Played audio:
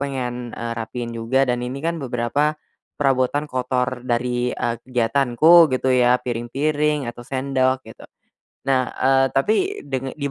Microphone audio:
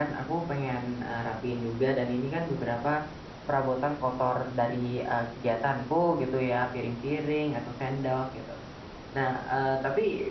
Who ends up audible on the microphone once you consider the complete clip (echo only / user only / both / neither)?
echo only